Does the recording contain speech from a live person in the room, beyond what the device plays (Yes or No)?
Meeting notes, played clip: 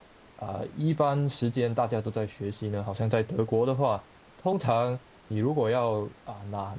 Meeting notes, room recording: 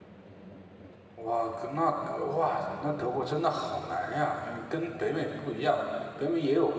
Yes